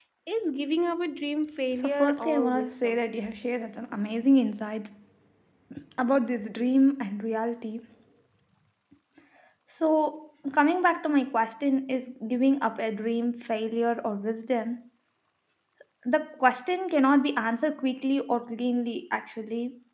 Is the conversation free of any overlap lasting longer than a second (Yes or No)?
No